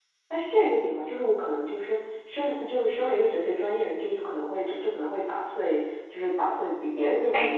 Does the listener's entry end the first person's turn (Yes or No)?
No